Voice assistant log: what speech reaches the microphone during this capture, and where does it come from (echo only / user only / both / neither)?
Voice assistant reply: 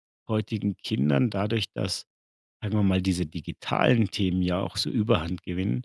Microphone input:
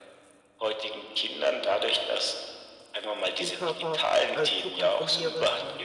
both